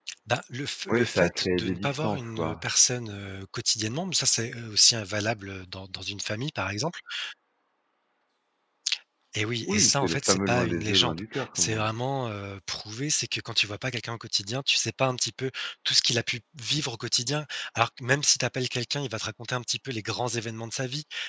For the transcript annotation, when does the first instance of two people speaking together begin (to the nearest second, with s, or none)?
1 s